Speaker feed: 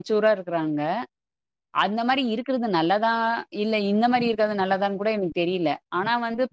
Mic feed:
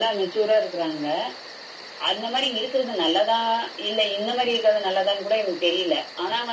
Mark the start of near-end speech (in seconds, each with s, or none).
none